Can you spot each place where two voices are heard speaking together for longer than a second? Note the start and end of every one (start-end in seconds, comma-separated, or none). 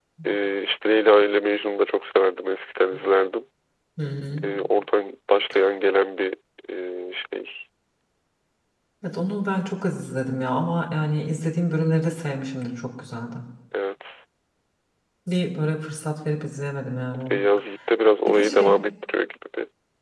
none